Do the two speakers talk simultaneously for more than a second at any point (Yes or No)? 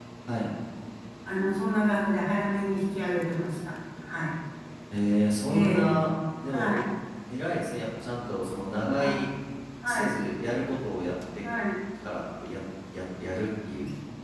No